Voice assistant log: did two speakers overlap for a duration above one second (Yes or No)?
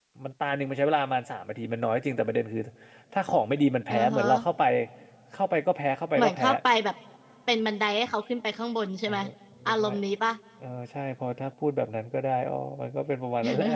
No